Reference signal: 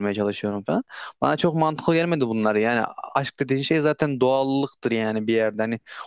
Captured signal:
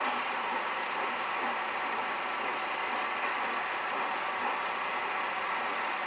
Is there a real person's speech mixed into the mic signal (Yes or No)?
No